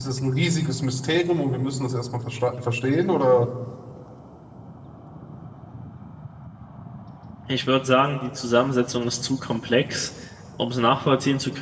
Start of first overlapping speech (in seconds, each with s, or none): none